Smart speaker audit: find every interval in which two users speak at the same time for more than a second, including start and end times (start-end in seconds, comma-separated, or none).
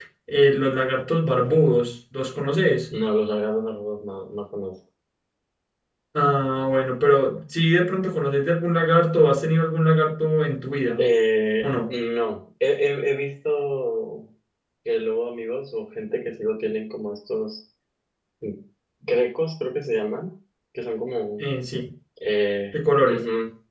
none